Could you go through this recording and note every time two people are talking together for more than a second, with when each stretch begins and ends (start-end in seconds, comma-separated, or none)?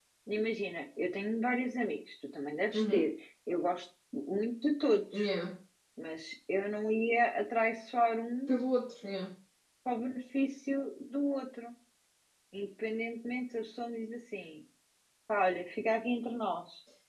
none